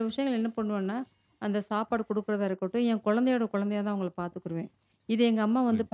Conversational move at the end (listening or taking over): listening